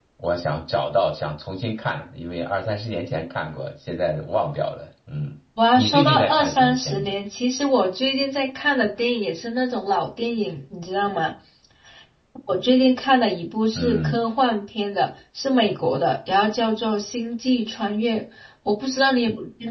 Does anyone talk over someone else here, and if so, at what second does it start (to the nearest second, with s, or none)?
6 s